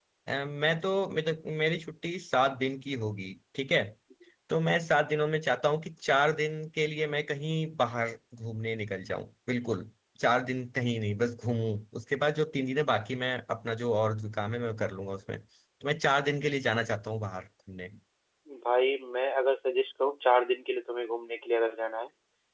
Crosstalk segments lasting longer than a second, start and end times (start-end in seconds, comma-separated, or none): none